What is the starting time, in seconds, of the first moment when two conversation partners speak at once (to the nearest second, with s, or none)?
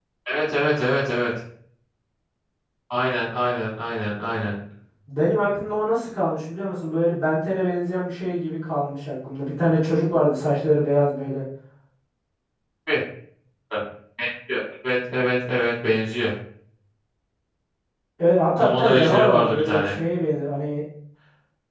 19 s